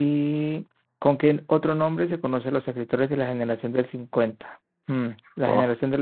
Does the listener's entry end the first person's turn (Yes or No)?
No